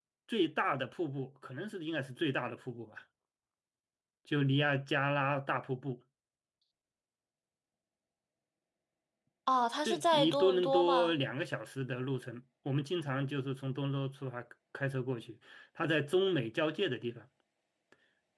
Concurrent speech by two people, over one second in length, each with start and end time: 9.8-11.1

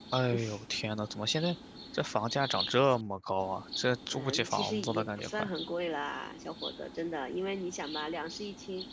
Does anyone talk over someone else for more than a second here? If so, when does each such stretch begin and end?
4.1-5.5

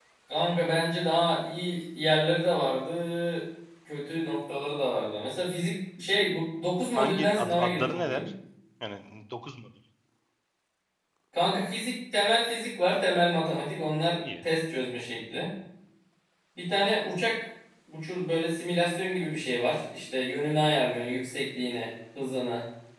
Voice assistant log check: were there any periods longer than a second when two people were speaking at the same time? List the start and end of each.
7.0-8.2

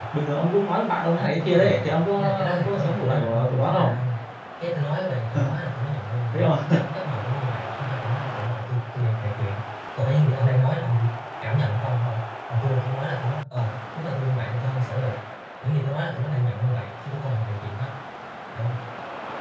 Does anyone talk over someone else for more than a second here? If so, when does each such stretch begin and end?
1.2-3.9

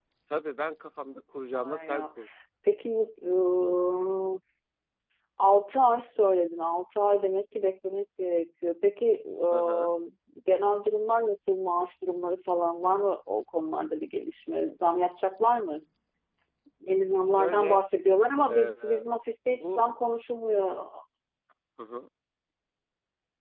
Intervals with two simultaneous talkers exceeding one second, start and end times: none

